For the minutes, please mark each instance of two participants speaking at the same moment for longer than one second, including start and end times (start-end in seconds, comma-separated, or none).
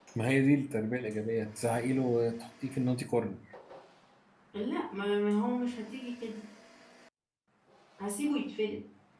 none